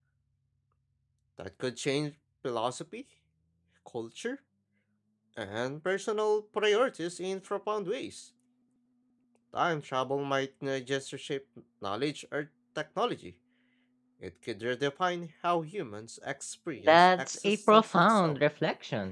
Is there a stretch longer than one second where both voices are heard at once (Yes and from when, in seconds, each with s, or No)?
Yes, from 16.9 s